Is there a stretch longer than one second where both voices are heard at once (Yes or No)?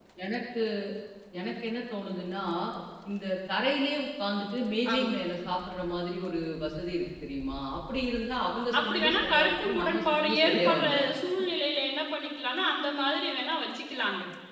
Yes